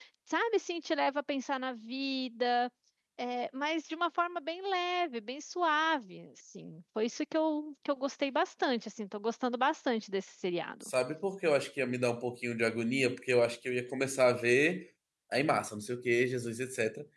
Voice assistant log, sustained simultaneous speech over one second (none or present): none